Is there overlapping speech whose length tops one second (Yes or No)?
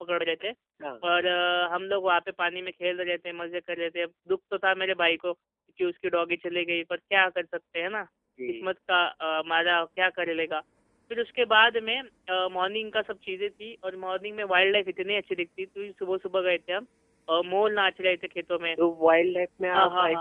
No